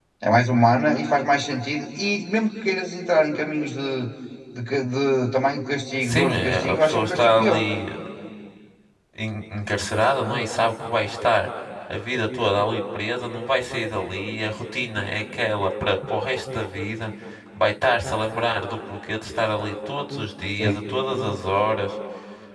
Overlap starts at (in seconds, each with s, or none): 6.0 s